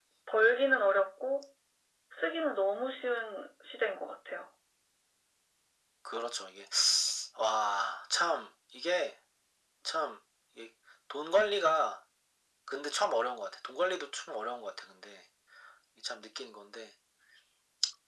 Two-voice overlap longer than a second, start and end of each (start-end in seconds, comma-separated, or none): none